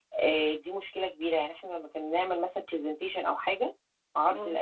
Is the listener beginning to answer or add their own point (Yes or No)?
No